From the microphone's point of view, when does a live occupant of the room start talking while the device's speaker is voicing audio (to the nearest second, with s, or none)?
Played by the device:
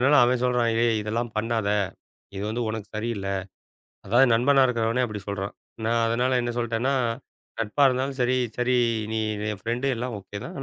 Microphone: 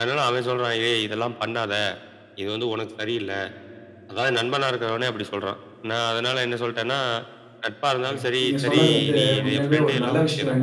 8 s